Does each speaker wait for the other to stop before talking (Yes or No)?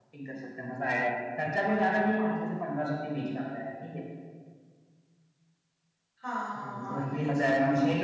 No